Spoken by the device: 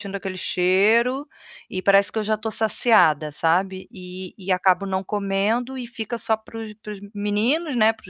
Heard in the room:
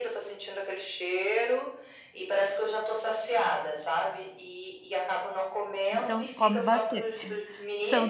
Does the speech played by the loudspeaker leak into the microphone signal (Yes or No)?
Yes